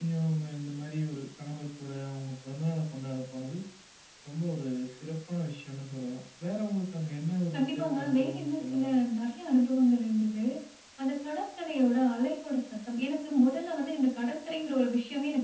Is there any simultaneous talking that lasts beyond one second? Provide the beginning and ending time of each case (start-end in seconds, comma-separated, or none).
7.5-8.8